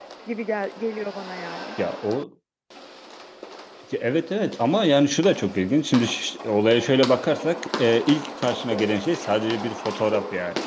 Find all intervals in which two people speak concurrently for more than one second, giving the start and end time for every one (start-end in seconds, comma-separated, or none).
none